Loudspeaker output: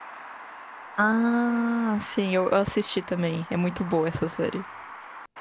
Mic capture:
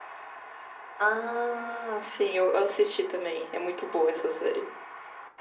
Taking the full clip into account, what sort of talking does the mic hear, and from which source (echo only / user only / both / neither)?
echo only